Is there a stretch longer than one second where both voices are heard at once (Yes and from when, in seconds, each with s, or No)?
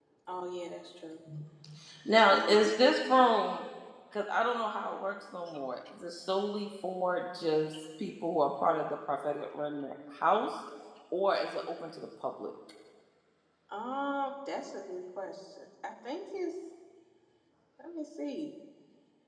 No